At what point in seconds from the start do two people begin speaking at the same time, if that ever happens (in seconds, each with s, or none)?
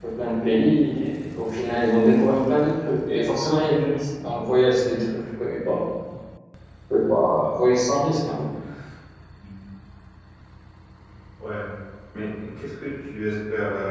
none